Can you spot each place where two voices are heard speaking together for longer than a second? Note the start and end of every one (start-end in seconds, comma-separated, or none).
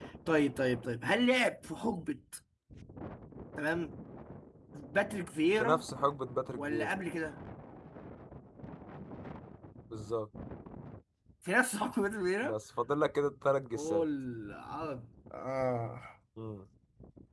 none